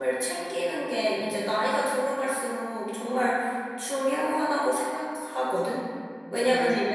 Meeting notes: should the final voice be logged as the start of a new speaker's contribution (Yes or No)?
No